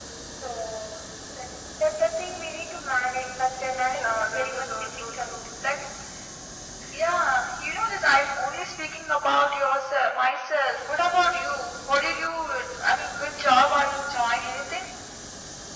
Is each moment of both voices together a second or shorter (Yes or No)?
No